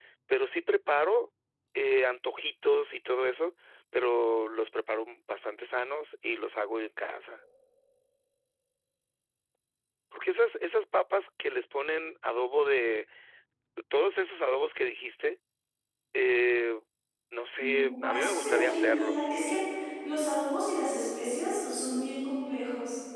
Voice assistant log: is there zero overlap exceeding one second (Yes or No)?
No